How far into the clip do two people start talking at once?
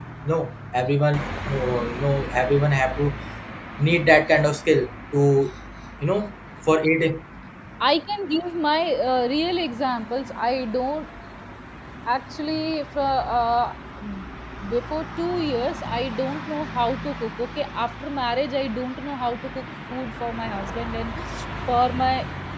none

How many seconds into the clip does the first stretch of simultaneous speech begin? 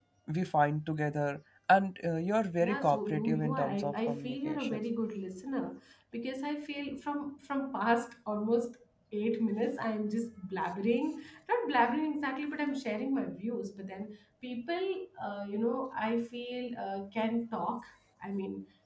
2.6 s

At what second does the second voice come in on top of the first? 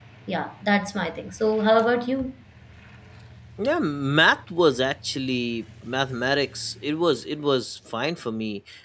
none

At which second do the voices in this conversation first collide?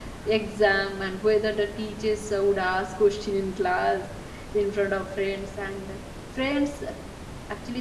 none

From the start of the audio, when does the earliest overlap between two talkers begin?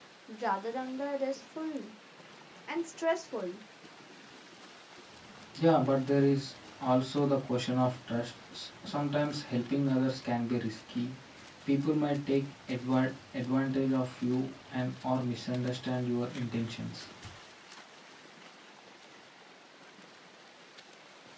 none

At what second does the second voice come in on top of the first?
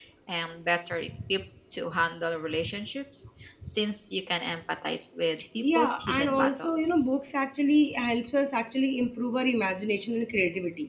5.6 s

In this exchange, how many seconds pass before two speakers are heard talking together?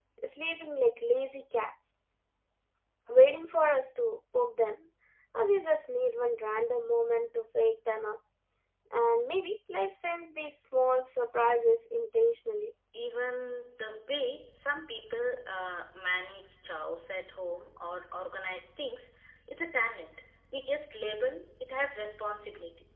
none

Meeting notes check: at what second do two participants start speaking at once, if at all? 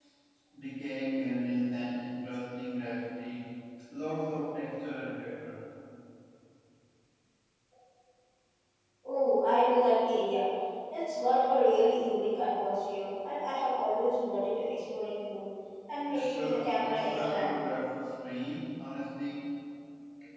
16.1 s

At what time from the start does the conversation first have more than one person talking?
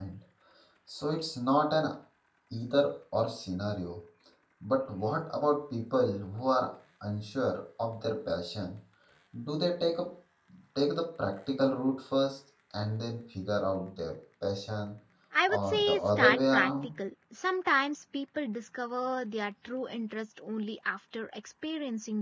15.5 s

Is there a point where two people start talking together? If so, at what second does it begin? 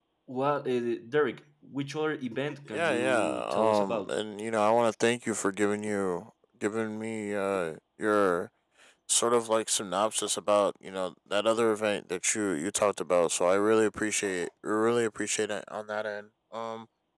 2.7 s

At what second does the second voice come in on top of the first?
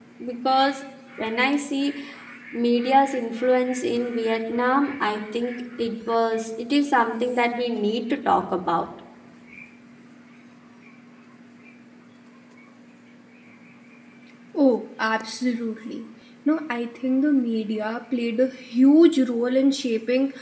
none

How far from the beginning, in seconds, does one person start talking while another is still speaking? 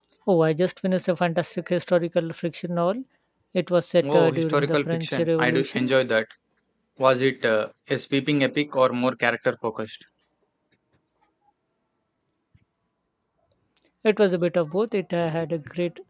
4.0 s

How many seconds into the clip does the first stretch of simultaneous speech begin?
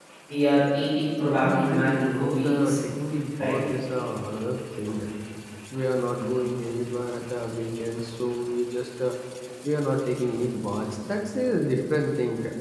1.2 s

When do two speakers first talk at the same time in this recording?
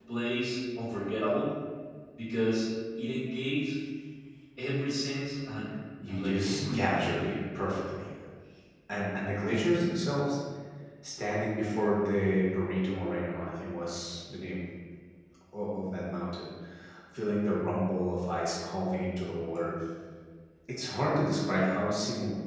6.0 s

